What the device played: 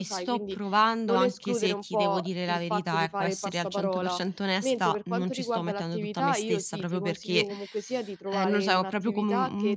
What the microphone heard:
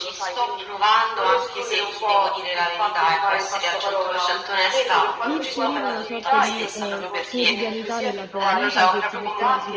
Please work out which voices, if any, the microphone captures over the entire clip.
both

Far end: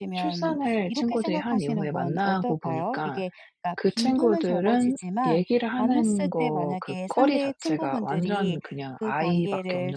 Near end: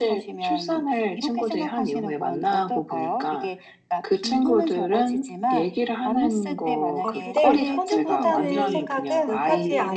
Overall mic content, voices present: both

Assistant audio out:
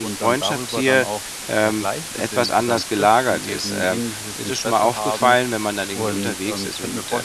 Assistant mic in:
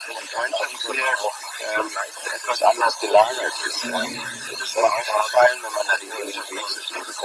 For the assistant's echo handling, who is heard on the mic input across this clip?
both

